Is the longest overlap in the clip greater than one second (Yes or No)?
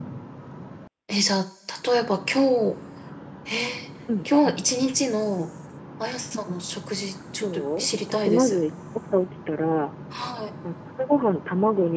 Yes